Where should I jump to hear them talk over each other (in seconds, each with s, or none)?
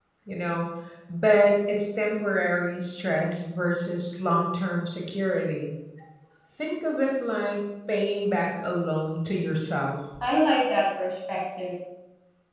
none